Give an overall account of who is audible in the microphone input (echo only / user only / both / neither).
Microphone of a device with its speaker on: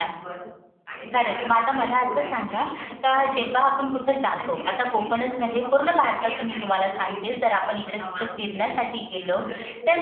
both